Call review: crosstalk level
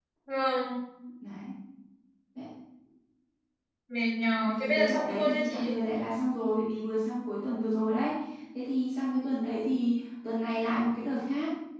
present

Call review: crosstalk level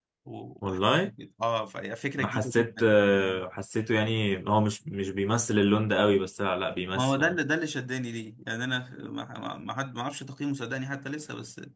present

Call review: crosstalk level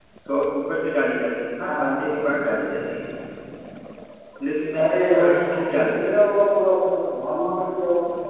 present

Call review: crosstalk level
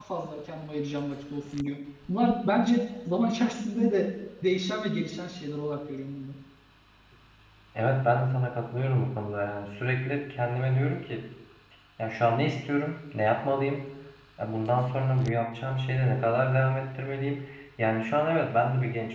none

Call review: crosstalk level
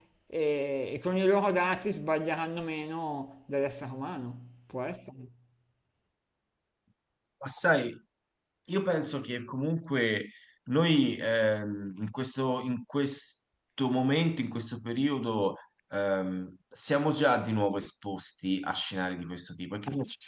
none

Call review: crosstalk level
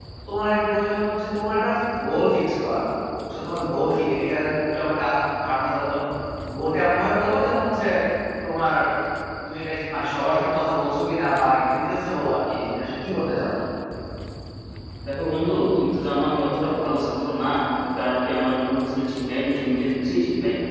none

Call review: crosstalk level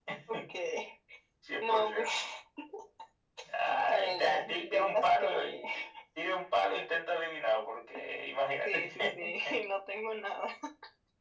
present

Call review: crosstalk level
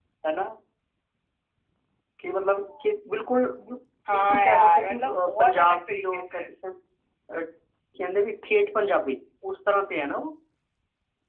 present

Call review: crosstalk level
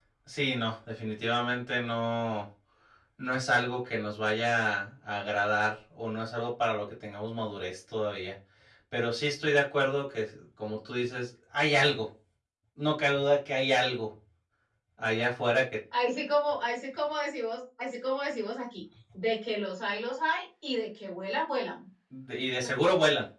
none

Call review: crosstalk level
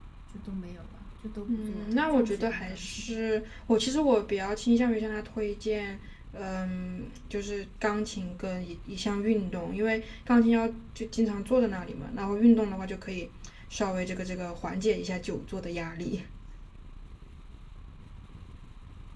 present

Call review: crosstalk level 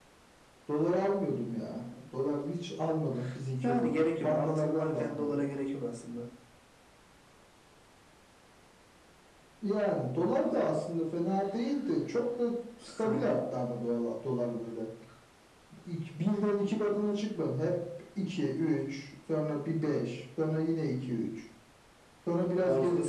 present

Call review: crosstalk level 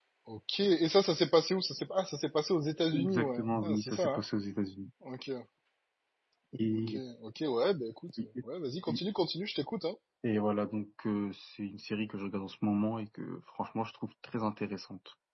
present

